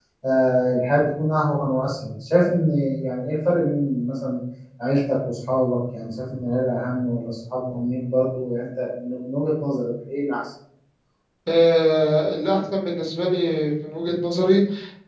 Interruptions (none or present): none